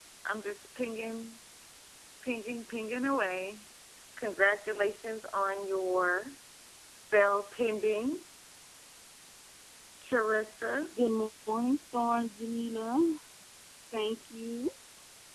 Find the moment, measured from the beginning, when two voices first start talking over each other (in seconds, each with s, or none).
none